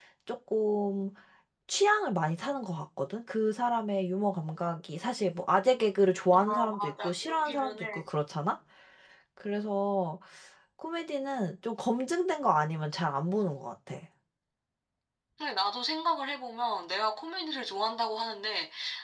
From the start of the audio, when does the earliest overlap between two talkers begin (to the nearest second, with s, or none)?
6 s